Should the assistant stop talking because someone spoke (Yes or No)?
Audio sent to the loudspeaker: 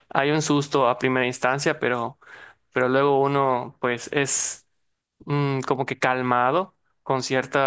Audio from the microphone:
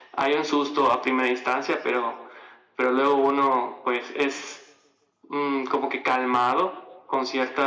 No